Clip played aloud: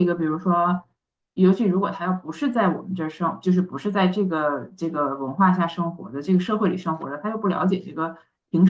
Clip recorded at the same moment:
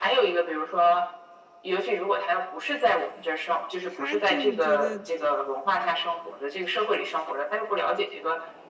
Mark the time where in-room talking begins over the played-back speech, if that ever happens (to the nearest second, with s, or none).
4 s